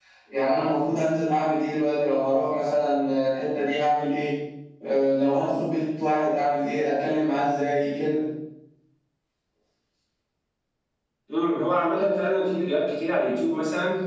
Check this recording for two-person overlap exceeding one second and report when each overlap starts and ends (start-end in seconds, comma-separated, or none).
none